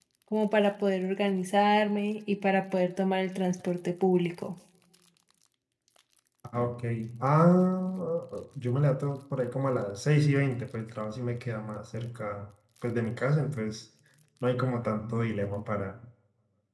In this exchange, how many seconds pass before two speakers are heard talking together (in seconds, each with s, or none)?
none